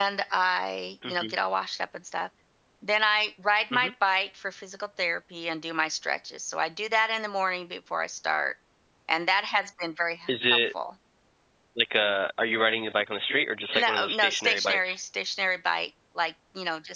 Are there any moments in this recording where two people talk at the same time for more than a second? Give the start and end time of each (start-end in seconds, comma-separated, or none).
13.8-15.0